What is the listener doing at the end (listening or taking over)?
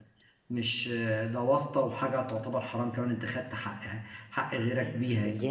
taking over